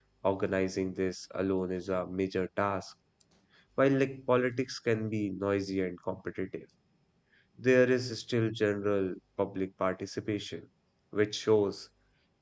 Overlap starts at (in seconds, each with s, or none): none